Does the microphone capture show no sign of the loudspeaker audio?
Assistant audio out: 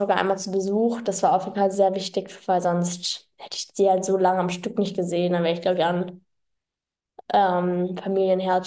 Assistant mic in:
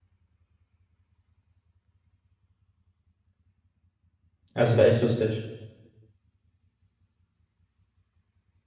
Yes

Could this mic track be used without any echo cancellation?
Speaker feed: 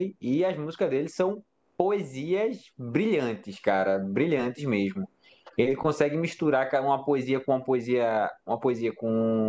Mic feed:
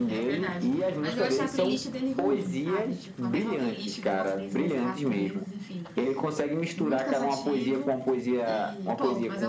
No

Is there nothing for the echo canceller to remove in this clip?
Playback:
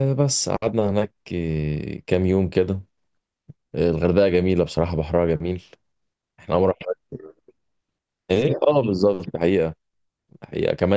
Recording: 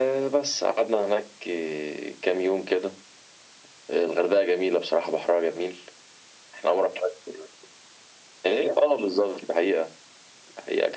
No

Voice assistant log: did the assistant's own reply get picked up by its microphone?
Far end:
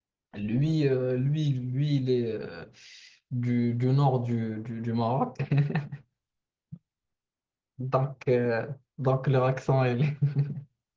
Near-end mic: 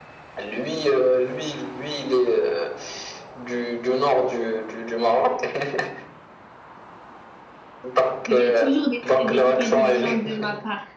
Yes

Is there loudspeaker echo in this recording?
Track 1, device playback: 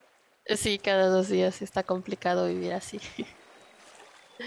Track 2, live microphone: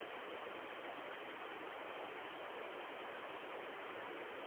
No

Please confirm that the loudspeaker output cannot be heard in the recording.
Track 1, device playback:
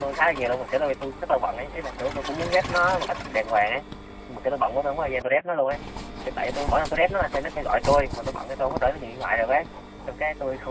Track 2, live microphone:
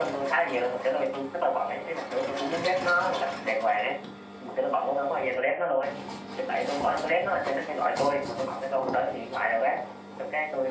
No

